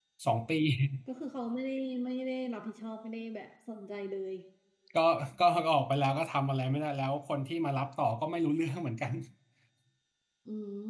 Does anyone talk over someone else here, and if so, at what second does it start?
none

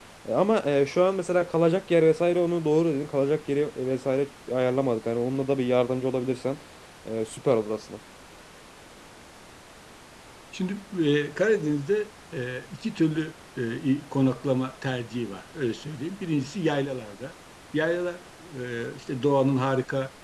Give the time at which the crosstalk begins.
none

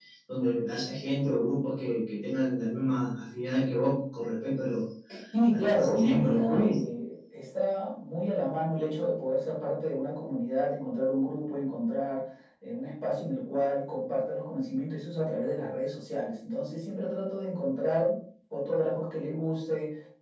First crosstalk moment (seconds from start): 5.5 s

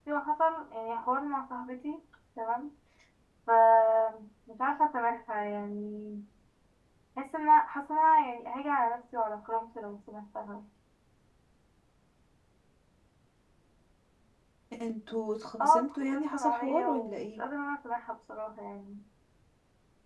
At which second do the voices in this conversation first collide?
15.6 s

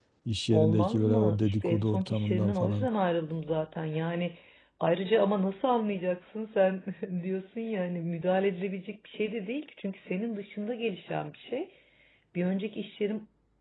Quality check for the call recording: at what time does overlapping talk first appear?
0.5 s

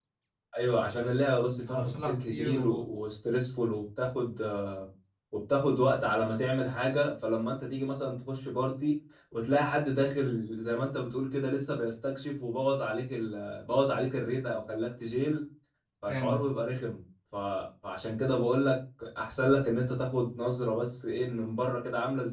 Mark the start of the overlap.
1.6 s

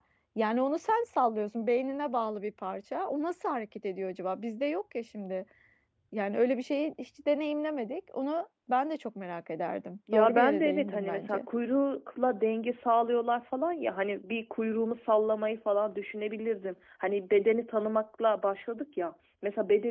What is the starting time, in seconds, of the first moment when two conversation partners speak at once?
10.1 s

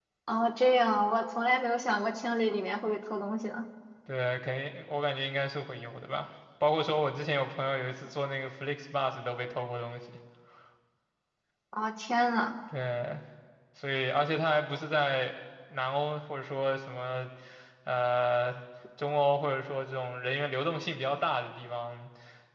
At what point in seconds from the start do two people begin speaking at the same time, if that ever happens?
none

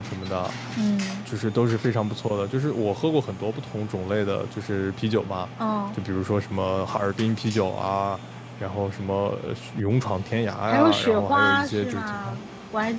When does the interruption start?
10.7 s

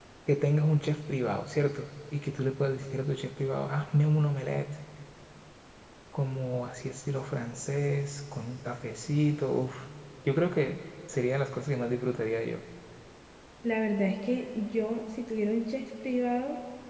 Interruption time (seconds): none

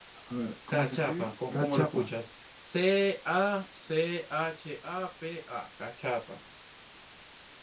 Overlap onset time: 0.7 s

